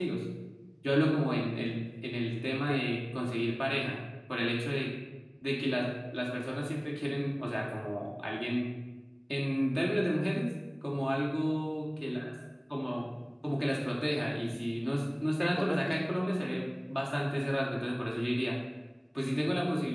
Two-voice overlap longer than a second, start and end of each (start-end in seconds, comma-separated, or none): 15.4-16.7